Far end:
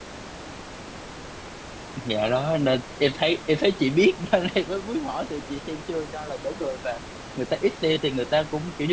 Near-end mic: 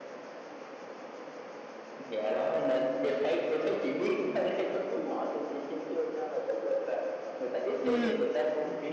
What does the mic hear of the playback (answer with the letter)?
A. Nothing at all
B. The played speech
B